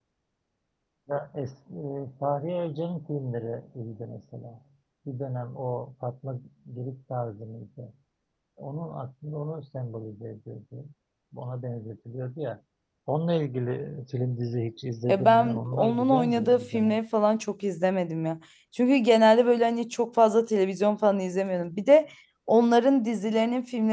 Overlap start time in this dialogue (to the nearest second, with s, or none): 15 s